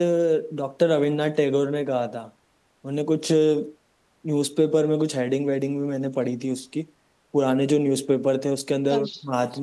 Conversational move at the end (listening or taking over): listening